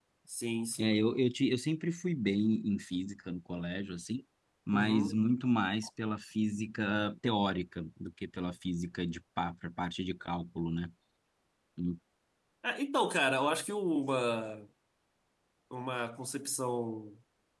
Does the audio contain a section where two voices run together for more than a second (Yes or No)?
No